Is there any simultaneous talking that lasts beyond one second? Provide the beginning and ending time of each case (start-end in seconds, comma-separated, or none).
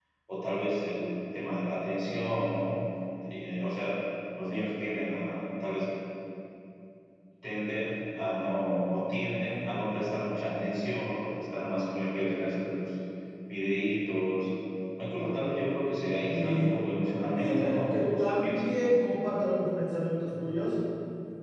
17.4-18.7